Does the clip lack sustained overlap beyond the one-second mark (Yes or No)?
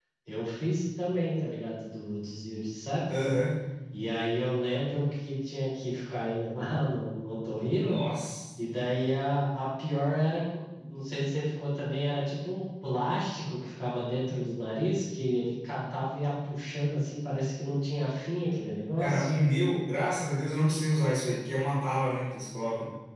Yes